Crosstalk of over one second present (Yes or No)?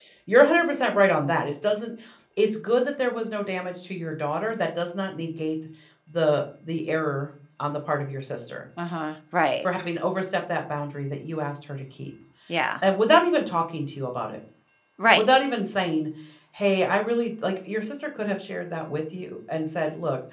No